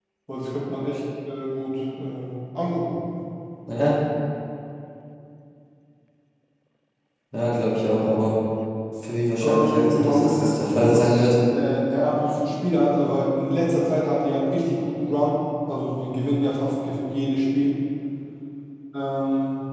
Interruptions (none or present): present